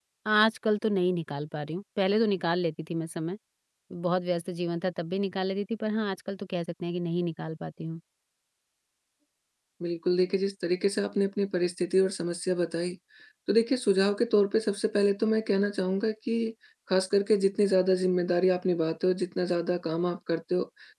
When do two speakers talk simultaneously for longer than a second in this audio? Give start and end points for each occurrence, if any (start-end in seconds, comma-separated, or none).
none